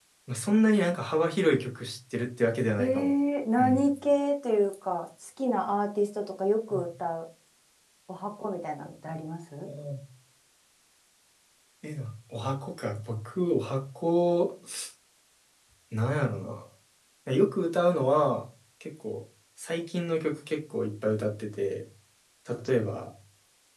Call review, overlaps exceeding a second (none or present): none